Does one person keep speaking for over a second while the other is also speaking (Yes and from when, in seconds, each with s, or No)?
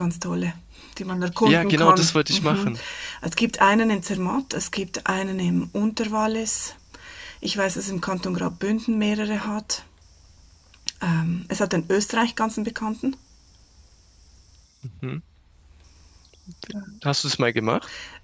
Yes, from 1.4 s